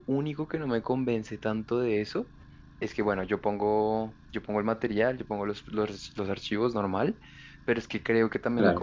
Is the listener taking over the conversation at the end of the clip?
No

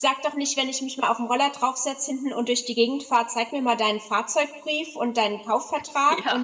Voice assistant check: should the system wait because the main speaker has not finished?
Yes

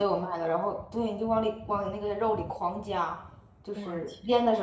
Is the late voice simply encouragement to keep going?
Yes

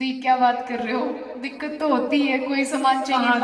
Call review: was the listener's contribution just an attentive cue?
No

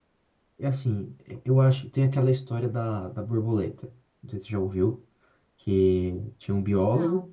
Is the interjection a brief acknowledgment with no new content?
Yes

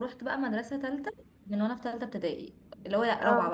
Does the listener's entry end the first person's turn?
No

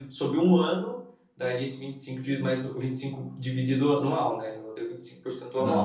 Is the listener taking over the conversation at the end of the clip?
Yes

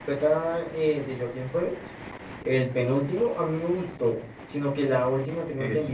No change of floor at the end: Yes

